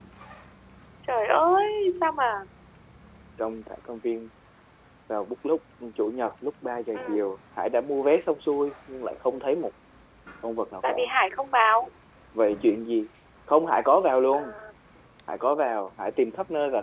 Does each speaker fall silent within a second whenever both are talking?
Yes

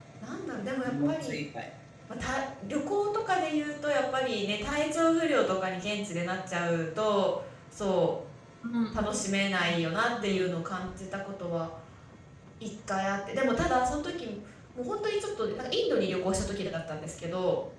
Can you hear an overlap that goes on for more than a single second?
No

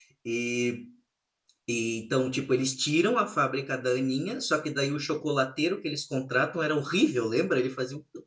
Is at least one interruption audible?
No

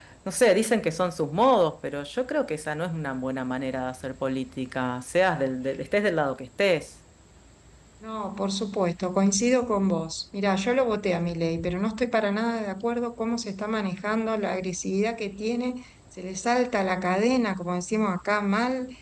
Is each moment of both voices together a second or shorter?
Yes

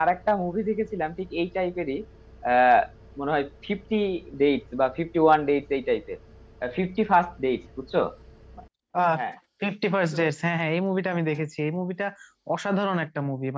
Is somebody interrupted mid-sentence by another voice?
No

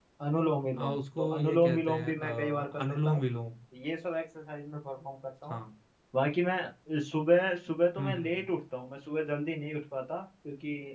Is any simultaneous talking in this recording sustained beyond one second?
Yes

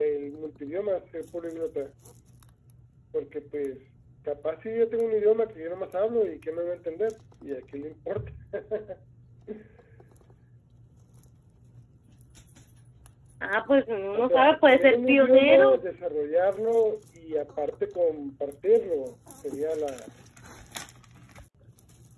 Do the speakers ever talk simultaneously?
Yes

